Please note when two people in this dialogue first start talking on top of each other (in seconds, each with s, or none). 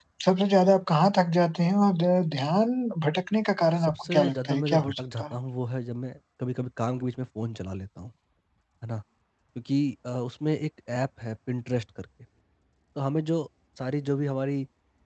3.6 s